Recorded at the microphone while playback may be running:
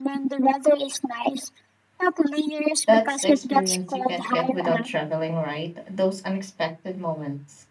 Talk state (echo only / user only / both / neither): both